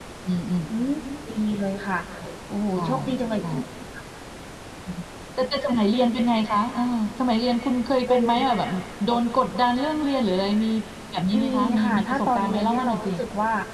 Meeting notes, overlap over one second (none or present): present